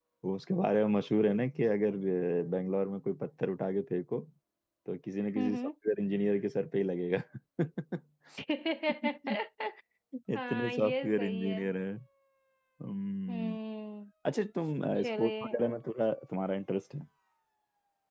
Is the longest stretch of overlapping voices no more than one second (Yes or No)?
No